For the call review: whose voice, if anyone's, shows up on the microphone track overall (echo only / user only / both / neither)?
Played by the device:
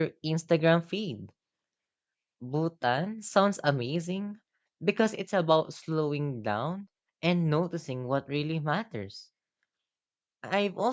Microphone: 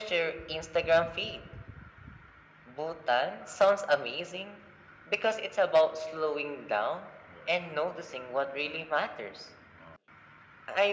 echo only